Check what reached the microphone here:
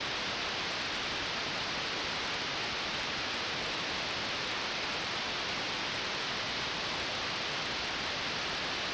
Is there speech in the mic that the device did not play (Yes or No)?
No